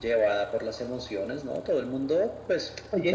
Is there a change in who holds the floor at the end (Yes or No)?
No